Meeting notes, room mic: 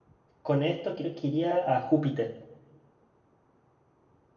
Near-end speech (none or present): present